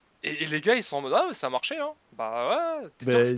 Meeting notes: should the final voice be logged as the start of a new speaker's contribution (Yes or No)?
No